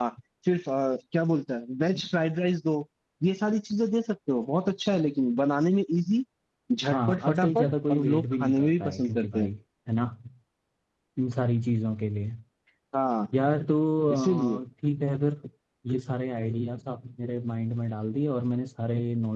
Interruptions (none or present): present